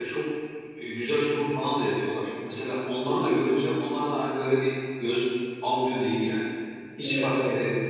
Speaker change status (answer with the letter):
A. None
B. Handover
A